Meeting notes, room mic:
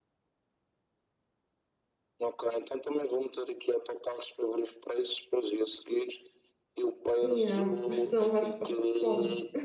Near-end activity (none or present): present